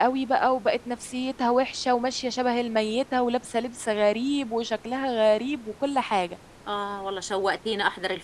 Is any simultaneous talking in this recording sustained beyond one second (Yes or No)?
No